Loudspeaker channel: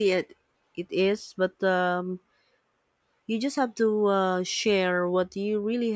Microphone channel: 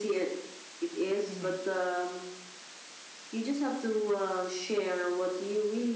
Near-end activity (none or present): present